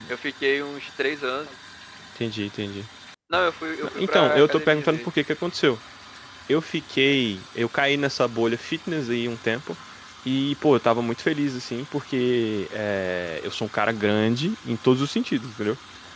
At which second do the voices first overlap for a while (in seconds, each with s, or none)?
3.8 s